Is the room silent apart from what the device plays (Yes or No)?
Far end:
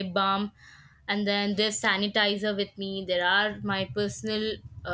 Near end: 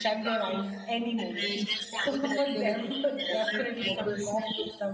No